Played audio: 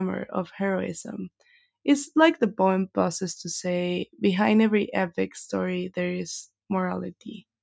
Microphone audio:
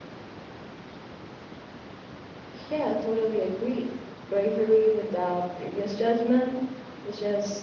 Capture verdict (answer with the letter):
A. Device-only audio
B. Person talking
B